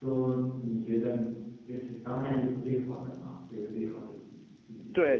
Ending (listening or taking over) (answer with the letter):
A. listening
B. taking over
B